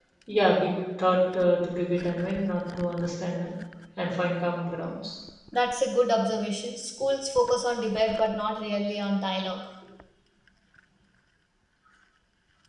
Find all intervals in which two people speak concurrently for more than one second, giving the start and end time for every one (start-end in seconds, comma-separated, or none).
none